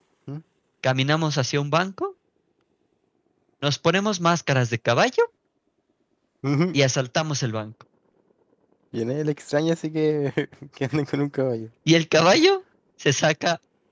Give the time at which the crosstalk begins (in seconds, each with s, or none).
none